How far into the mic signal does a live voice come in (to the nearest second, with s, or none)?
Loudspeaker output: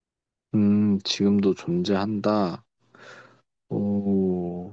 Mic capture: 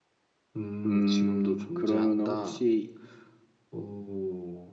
1 s